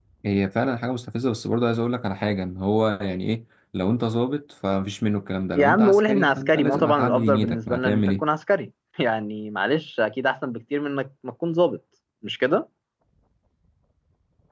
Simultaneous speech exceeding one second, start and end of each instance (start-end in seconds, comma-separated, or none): 5.5-8.2